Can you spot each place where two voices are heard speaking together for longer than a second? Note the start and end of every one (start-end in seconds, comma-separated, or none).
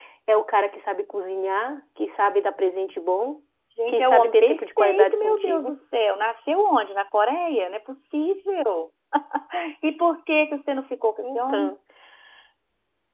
3.9-5.7